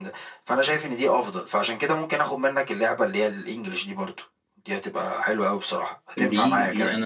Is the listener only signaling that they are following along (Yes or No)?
No